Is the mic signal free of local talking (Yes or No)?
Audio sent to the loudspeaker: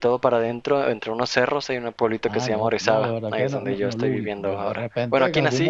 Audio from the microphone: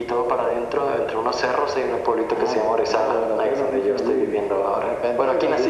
Yes